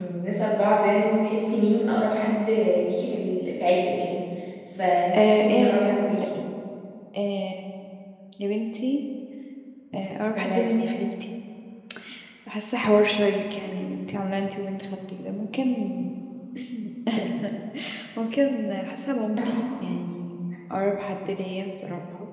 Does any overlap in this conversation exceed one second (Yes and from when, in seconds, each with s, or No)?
Yes, from 5.2 s